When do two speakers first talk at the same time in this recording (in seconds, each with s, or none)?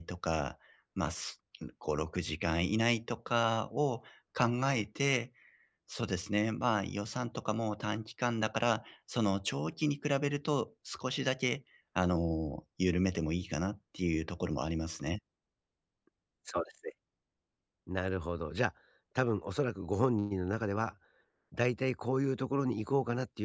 none